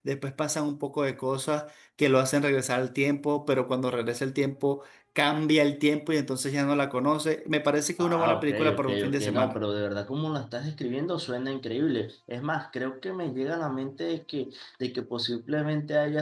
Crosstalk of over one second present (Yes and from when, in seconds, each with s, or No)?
Yes, from 8.0 s